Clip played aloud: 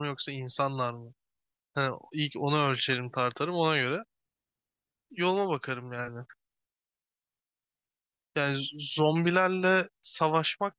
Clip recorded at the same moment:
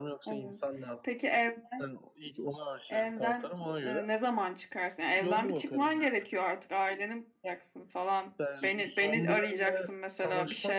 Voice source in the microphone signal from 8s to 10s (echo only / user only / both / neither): both